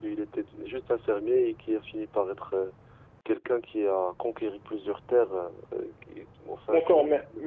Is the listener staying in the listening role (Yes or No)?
No